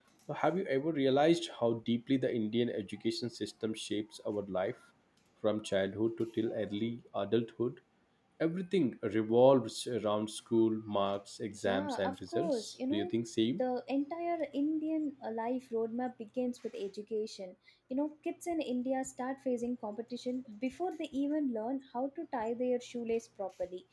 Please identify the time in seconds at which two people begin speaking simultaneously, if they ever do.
11.7 s

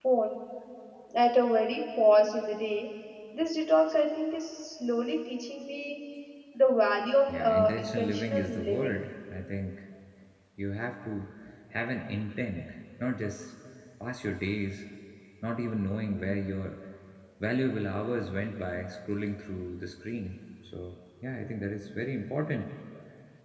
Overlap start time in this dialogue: 7.3 s

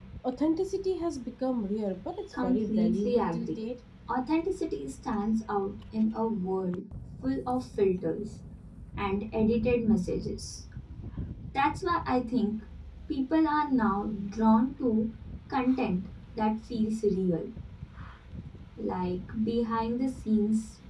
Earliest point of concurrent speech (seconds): 2.3 s

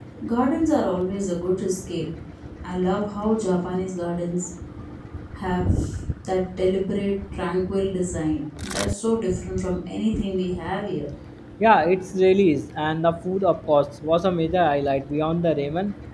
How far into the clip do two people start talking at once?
none

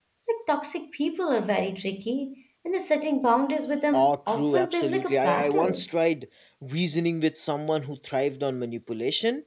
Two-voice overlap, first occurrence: 3.9 s

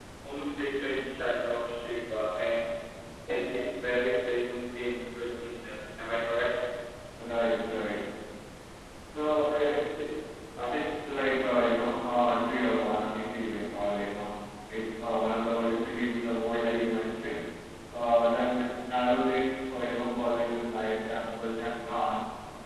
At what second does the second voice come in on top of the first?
none

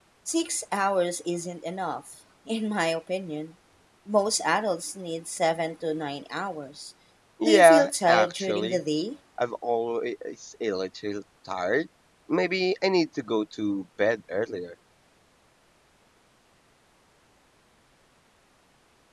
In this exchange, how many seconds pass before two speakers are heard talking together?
7.5 s

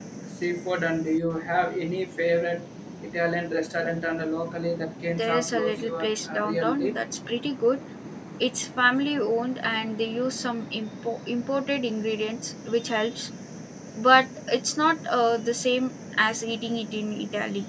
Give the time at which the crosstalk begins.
5.1 s

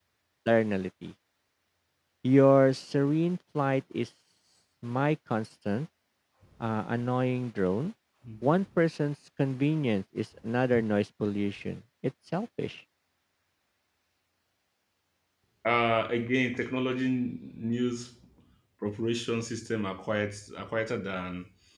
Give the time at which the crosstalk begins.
none

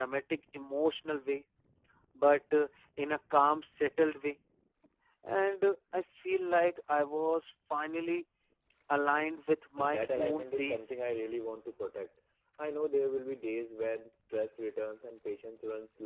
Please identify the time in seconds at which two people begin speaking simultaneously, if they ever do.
9.8 s

